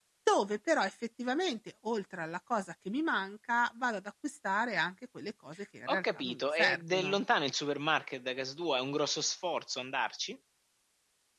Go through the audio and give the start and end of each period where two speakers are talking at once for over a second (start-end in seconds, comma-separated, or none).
5.9-7.2